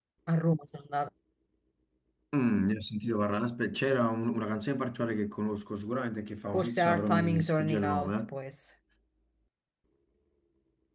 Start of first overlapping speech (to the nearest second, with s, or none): 7 s